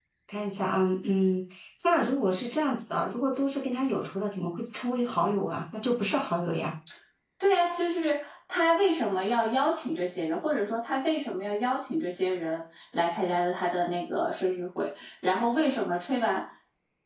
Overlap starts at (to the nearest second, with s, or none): none